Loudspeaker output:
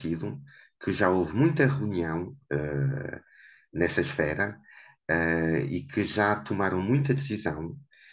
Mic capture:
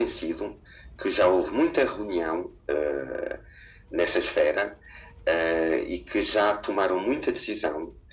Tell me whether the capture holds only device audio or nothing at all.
Yes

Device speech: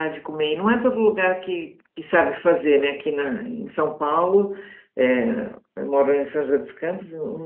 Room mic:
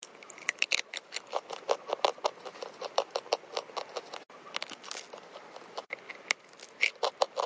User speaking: No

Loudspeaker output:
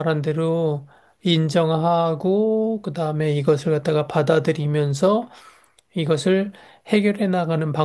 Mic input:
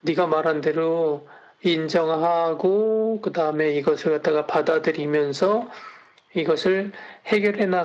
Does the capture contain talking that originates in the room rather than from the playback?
No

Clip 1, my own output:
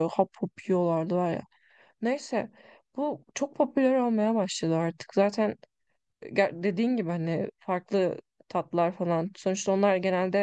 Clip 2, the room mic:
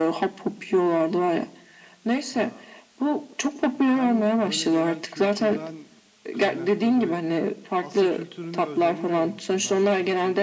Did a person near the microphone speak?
Yes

